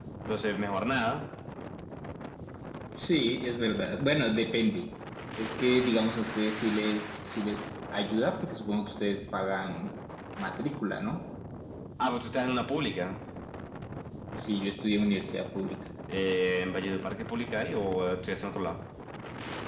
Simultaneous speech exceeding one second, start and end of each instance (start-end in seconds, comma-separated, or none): none